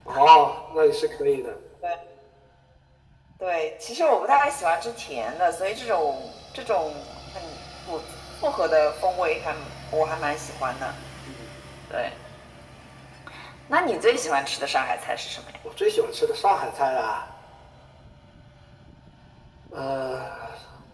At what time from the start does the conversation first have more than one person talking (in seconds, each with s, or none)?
none